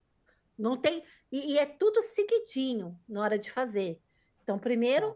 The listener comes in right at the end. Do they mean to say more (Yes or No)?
No